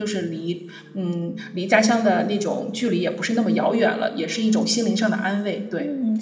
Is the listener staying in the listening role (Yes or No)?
No